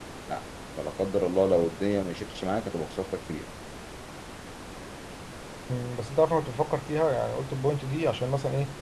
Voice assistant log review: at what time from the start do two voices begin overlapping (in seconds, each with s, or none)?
none